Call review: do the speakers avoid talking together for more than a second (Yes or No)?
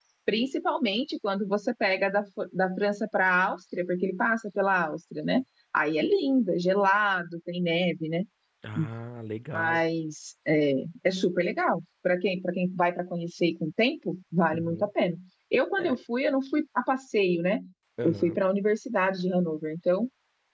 Yes